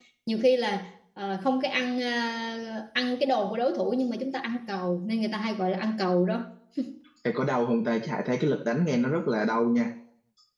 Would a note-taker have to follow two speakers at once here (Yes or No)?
No